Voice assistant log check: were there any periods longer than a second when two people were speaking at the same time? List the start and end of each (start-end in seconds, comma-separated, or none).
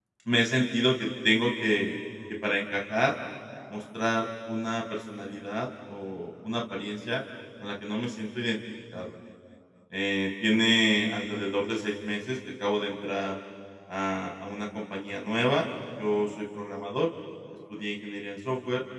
none